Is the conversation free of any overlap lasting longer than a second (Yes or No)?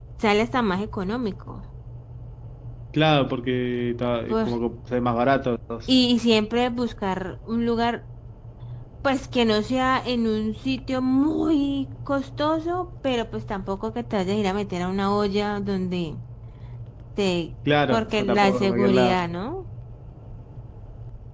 No